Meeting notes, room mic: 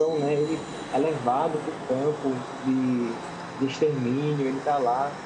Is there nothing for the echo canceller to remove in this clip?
Yes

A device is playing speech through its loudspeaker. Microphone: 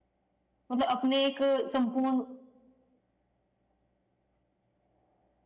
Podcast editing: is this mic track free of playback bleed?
Yes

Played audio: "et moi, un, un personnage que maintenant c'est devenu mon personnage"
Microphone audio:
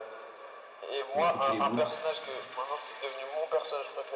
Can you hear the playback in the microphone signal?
Yes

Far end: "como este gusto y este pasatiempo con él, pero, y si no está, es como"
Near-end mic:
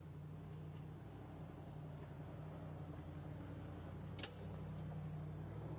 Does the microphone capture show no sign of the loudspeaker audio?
Yes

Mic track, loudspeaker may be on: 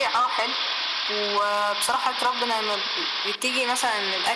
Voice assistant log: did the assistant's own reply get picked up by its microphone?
Yes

